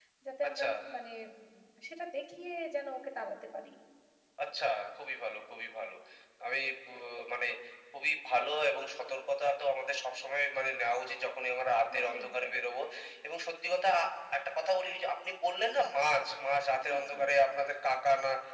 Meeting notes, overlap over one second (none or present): none